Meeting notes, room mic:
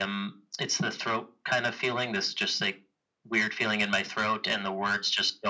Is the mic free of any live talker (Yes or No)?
Yes